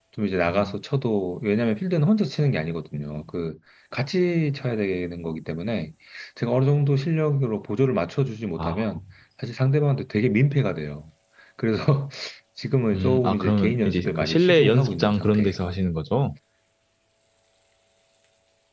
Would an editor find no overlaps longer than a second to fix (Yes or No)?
No